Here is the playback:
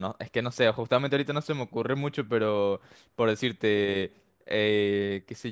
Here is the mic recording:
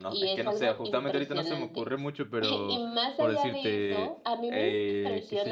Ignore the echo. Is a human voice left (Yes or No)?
Yes